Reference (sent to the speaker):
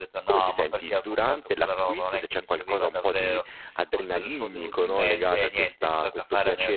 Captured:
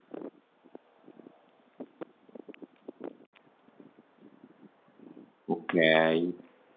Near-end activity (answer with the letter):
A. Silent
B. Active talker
B